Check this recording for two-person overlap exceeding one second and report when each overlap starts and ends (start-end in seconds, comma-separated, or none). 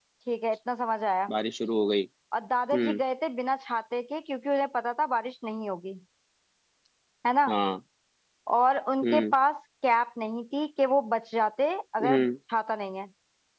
none